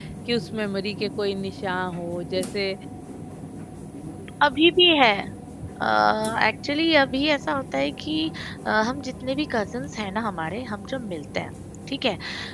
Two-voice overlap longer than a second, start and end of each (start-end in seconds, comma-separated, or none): none